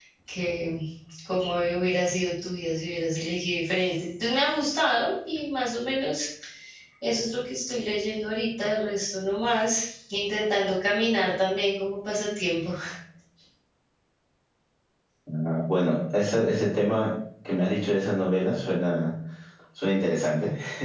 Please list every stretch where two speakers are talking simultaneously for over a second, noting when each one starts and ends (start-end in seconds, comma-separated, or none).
none